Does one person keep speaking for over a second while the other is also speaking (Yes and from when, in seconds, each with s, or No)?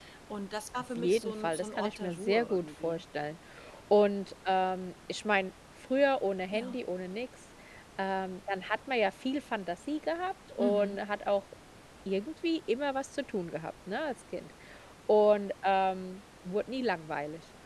Yes, from 0.8 s